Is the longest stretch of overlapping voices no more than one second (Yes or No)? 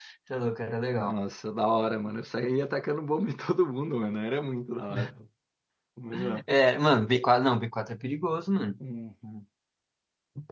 Yes